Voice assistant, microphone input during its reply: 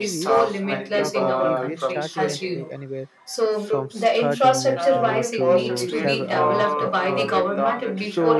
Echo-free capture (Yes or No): No